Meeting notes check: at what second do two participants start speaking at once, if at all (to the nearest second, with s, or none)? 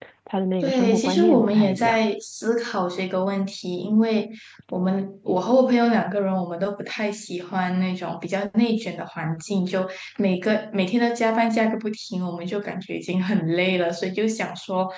1 s